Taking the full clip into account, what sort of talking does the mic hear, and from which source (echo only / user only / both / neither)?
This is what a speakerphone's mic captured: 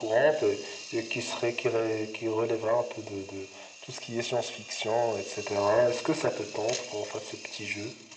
echo only